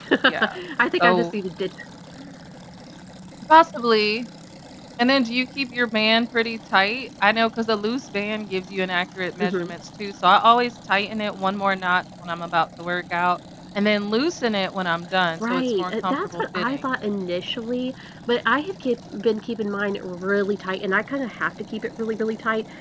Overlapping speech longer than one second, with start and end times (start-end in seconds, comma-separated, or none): 15.4-16.8